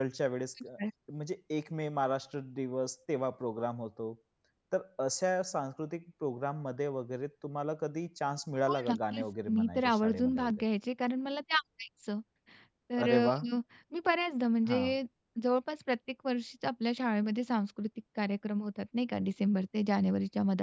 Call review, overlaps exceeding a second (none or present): present